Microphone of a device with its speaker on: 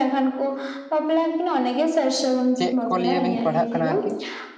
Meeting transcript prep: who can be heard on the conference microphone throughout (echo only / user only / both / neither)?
both